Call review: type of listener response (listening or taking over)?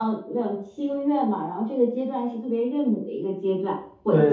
listening